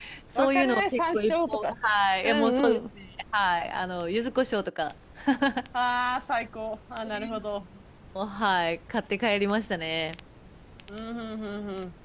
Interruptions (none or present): present